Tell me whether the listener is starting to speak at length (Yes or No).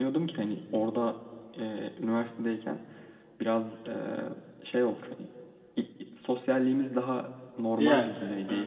No